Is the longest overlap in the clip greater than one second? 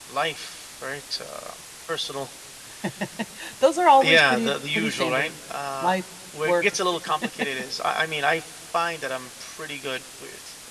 Yes, from 4.0 s

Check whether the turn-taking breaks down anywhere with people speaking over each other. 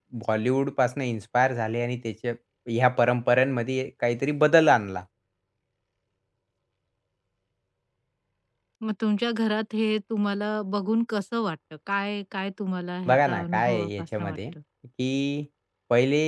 Yes, from 13.1 s

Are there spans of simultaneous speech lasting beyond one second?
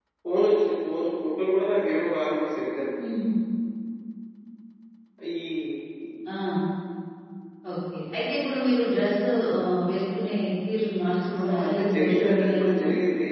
Yes, from 11.3 s

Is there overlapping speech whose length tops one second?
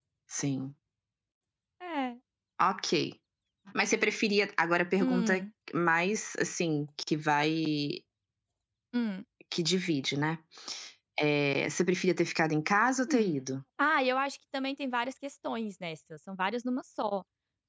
No

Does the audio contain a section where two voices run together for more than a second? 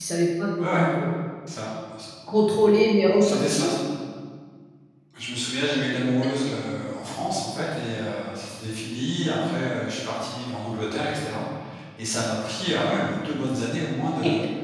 No

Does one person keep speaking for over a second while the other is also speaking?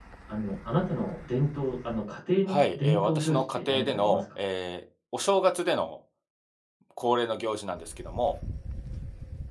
Yes, from 2.5 s

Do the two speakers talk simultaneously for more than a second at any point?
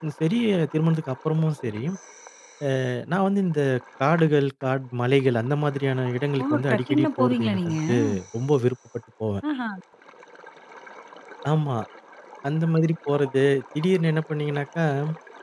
Yes, from 6.4 s

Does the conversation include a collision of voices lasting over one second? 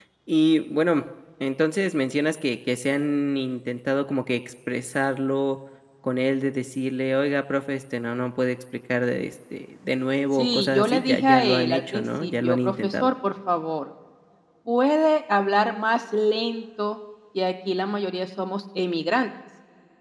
Yes, from 10.3 s

